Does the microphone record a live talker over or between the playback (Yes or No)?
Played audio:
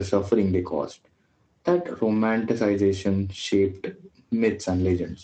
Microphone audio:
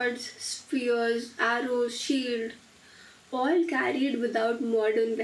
Yes